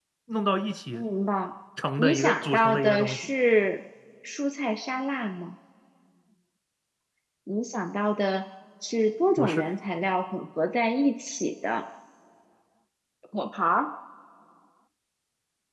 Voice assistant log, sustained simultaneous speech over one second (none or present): present